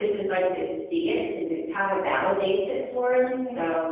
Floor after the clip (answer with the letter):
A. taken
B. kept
A